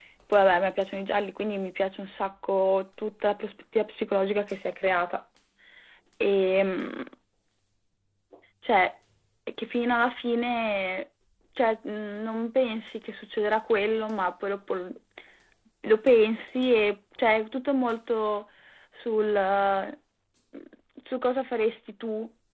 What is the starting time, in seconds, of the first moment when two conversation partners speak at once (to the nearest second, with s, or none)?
none